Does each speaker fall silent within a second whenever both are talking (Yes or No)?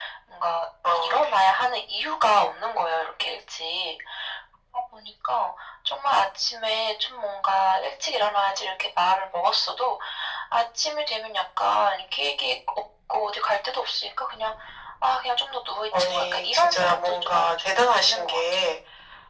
No